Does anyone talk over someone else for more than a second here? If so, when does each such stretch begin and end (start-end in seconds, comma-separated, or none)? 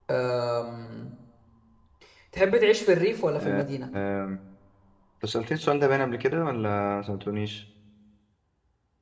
none